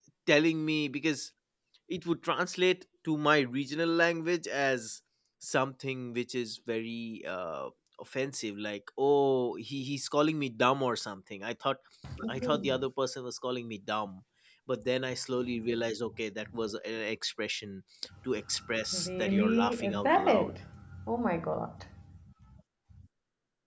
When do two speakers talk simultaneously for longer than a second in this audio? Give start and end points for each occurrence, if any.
18.9-20.5

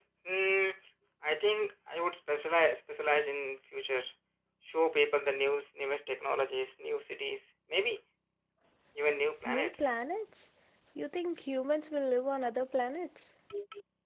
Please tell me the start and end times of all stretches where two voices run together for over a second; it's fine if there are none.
none

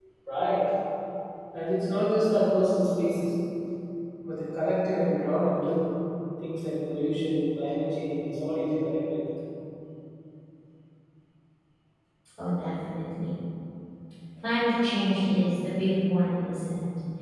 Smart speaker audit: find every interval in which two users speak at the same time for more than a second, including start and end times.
none

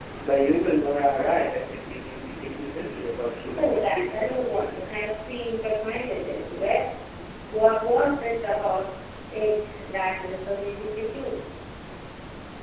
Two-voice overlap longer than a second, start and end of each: 3.6-4.9

